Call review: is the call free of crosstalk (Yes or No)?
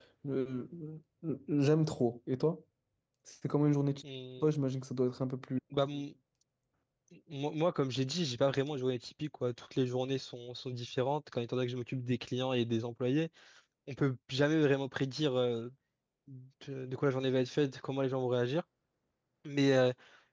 Yes